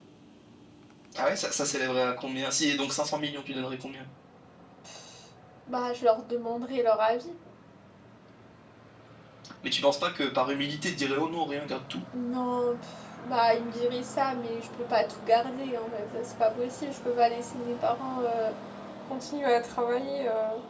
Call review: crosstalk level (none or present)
none